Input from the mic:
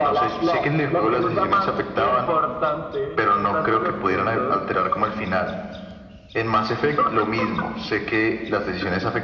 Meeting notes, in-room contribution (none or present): none